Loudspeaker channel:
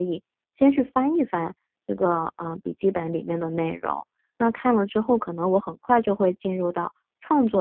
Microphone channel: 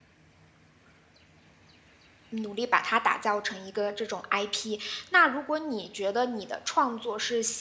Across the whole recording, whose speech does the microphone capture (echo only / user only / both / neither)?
user only